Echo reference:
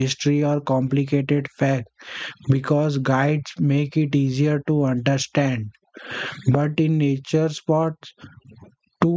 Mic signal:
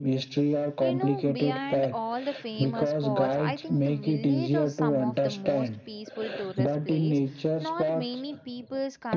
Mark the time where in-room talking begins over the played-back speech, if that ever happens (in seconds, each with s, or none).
0.8 s